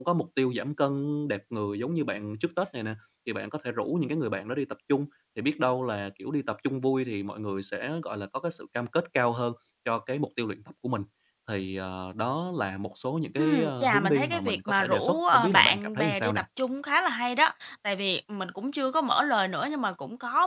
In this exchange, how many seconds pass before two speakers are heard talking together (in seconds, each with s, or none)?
13.4 s